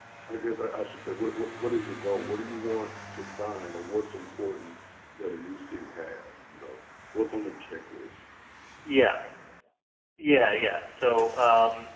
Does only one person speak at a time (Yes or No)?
Yes